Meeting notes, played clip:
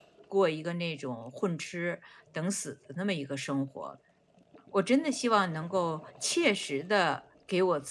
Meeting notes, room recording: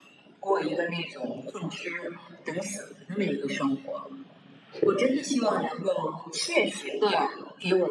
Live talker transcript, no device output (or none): 是